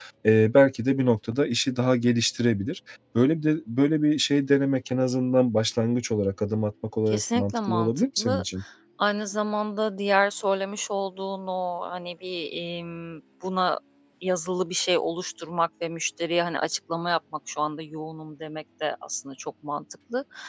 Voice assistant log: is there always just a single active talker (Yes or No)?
No